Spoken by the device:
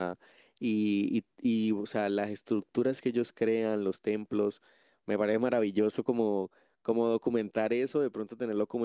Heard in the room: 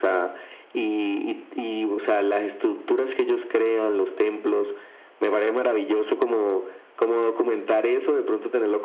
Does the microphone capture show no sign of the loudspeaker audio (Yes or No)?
No